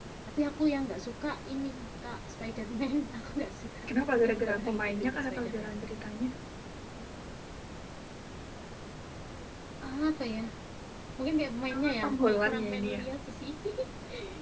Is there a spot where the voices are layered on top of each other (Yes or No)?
Yes